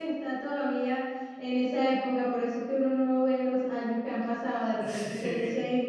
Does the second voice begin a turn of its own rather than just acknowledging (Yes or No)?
No